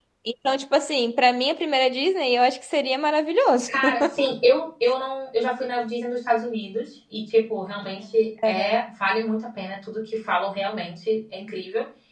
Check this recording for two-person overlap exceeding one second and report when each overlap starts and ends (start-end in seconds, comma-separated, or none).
none